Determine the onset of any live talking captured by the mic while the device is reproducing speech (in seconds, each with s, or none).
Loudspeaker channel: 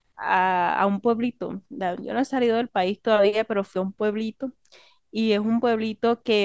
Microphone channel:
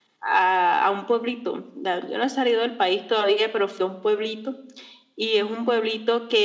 none